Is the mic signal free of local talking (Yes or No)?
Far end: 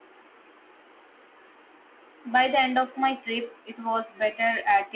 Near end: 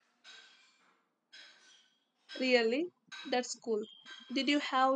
No